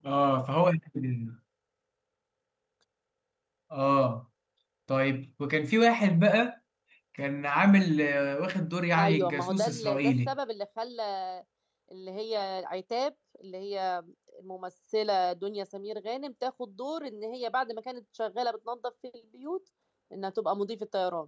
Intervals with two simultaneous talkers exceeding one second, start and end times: 9.0-10.3

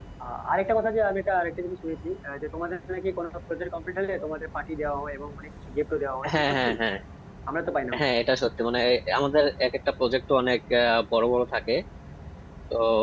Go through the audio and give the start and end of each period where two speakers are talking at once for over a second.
none

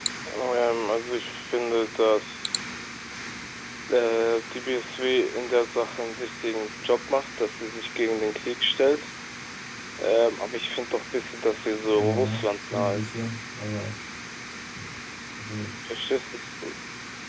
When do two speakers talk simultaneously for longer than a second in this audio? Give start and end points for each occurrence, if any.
12.0-13.2

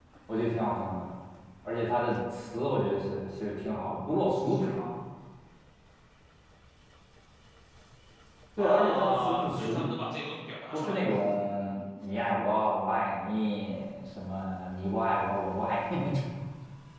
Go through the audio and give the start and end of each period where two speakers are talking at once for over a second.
8.6-9.8

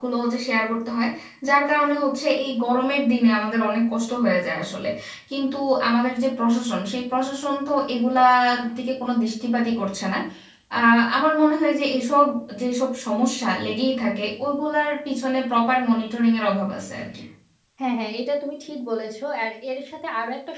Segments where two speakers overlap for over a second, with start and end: none

